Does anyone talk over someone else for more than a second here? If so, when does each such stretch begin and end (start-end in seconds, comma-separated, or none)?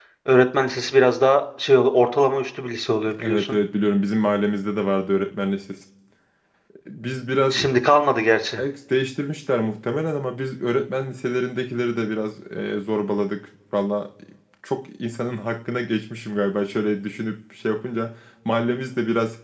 none